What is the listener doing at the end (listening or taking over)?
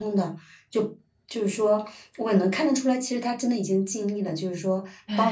listening